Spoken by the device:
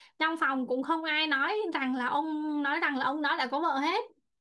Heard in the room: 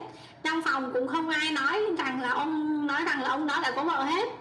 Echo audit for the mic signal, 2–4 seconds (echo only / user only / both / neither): echo only